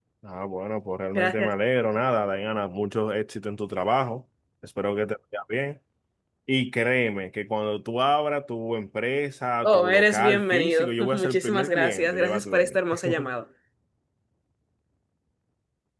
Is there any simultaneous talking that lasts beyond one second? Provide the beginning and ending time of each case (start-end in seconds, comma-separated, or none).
9.6-12.6